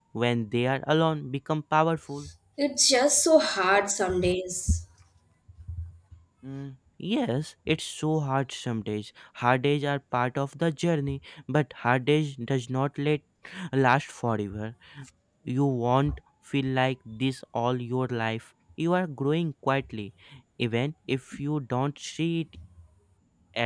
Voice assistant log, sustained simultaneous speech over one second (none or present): none